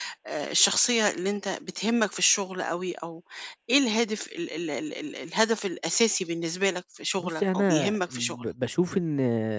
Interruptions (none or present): present